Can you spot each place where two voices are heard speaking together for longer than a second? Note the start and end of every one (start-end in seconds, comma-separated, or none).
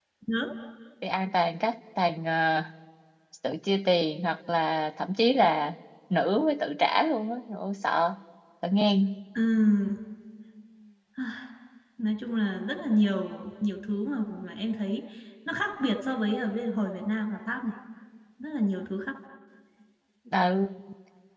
none